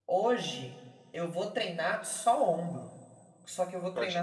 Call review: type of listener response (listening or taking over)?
listening